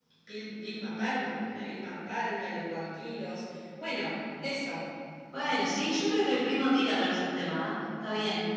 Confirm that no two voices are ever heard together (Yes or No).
Yes